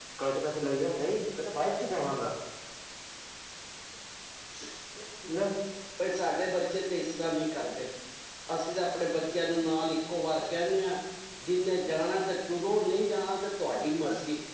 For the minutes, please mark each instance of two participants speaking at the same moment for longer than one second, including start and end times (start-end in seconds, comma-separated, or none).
none